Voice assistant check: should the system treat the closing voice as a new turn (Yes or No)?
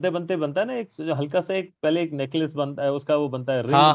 Yes